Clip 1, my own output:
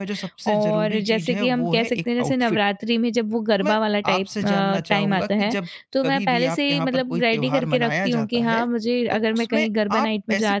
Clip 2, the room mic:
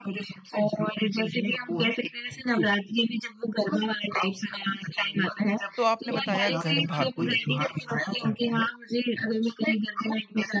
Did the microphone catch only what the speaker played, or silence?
No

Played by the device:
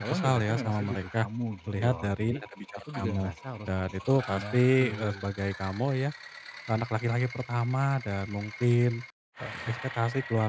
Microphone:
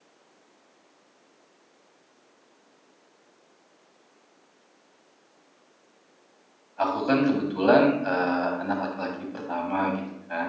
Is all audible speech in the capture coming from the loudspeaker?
No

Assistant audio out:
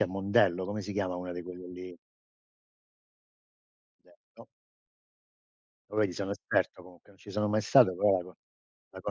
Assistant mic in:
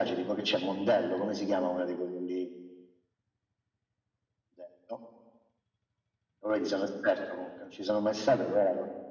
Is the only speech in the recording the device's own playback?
Yes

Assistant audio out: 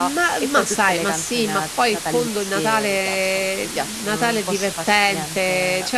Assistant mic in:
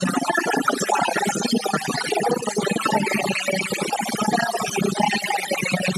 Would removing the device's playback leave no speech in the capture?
Yes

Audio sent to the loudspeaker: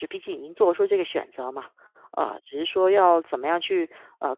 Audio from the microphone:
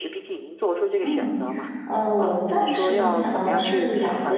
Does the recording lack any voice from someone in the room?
No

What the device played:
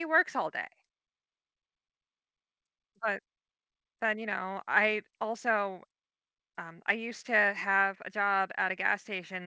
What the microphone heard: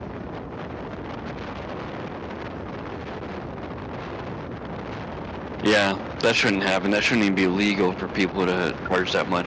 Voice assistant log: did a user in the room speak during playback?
Yes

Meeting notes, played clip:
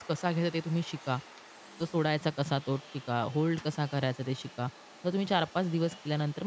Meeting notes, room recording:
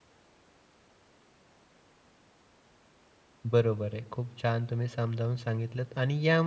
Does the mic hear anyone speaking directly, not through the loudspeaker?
Yes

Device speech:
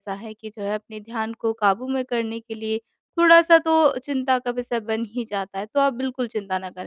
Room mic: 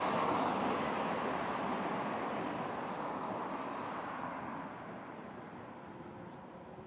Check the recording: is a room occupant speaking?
No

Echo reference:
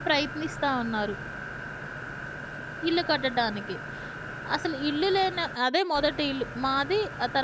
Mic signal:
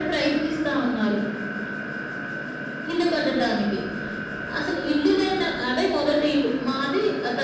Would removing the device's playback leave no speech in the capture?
Yes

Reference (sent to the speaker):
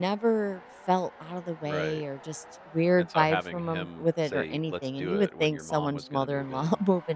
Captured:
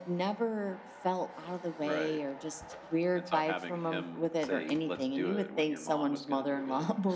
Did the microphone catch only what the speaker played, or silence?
Yes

